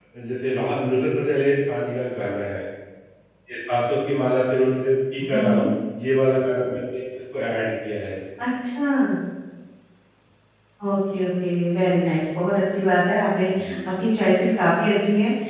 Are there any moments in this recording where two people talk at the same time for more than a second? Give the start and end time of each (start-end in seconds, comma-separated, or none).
none